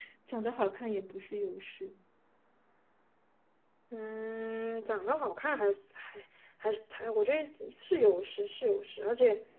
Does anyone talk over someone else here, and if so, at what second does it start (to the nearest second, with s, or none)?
none